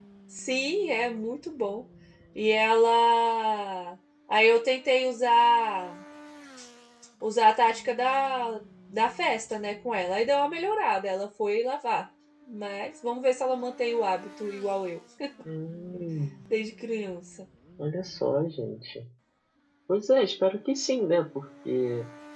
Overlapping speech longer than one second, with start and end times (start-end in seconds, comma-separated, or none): none